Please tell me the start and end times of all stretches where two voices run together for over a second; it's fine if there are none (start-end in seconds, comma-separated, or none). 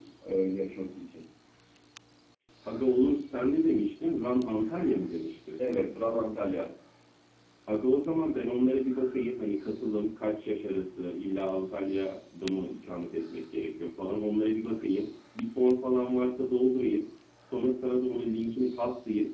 none